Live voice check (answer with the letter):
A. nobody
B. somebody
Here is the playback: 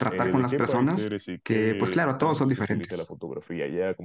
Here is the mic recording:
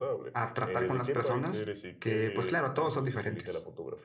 A